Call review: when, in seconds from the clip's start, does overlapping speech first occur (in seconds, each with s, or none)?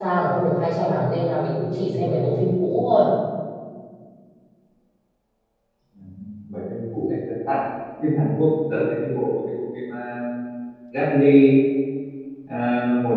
none